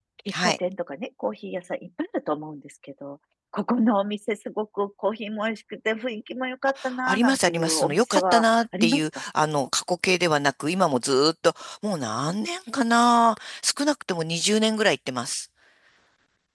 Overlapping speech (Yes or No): Yes